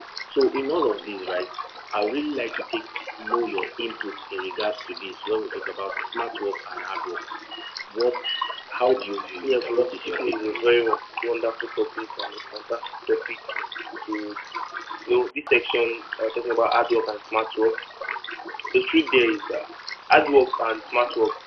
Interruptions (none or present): present